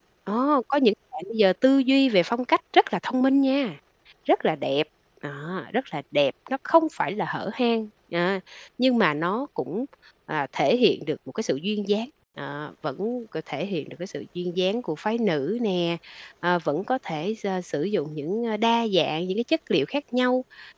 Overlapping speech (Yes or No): No